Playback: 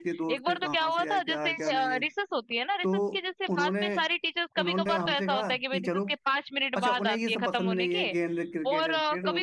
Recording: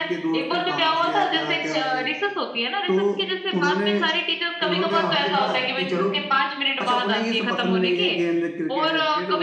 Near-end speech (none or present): none